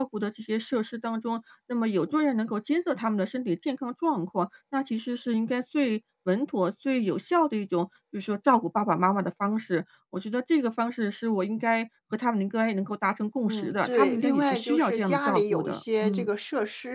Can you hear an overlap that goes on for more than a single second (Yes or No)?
Yes